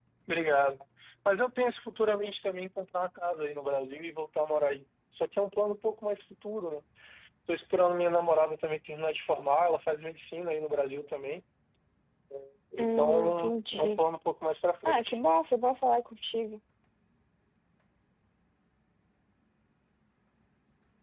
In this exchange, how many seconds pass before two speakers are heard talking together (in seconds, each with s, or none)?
12.8 s